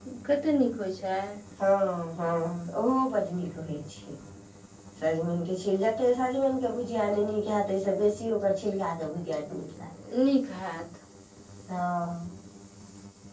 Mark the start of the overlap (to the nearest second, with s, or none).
none